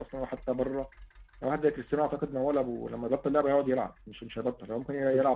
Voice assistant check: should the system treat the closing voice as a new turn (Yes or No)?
No